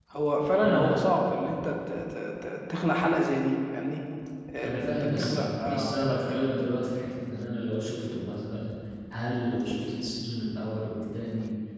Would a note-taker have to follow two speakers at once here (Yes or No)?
Yes